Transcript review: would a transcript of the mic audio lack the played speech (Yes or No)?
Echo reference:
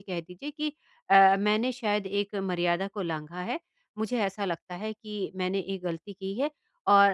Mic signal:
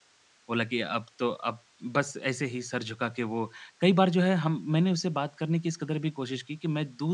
Yes